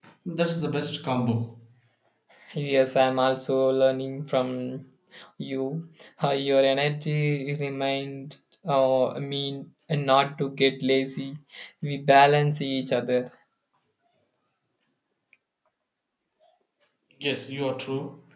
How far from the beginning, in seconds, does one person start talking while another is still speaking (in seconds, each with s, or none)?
none